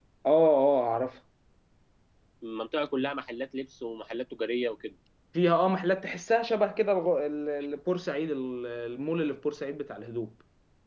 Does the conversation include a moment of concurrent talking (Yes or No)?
No